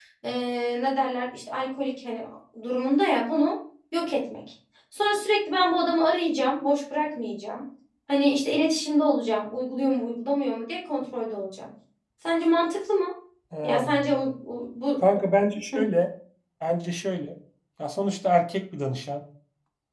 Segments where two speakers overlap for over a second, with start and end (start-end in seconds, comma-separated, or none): none